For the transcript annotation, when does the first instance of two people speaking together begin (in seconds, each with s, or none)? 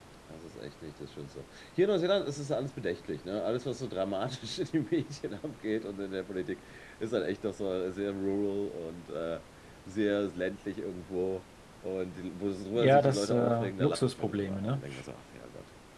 12.8 s